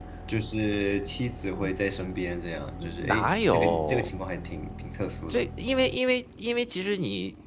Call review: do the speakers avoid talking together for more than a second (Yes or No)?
No